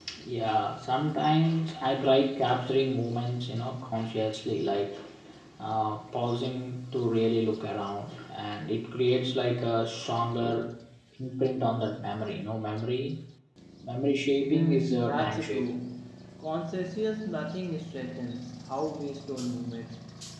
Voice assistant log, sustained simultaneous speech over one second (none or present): present